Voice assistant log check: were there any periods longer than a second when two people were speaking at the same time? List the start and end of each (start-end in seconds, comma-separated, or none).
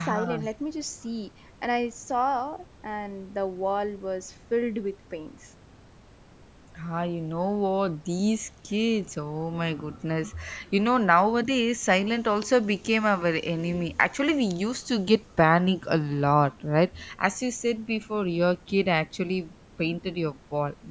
none